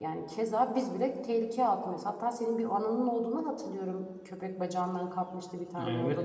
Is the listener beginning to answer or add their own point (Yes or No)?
Yes